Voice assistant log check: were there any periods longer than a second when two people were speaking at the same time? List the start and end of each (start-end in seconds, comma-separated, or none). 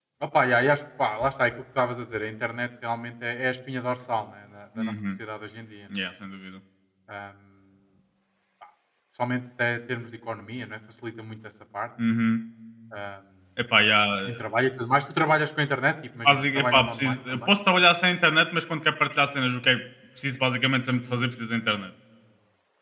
16.3-17.5